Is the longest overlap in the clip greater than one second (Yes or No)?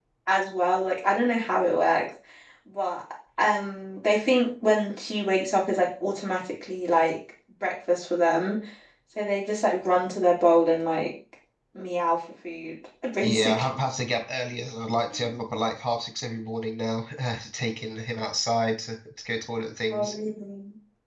No